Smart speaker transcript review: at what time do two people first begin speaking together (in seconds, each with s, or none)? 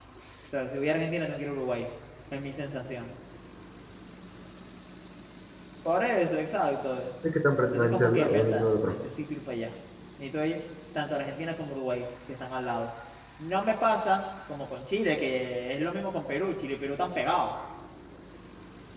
7.7 s